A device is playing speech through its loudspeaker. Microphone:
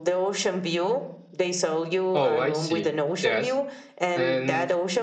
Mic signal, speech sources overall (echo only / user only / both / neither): both